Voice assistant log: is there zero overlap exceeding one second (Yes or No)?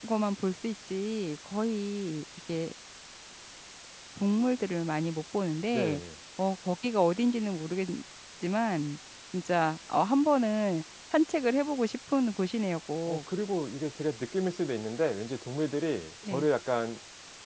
Yes